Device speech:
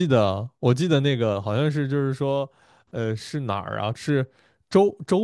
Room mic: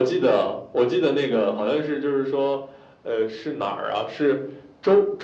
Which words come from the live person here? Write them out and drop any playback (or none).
嗯，